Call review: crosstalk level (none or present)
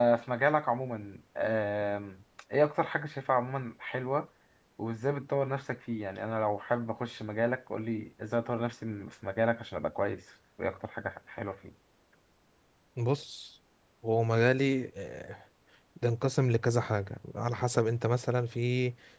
none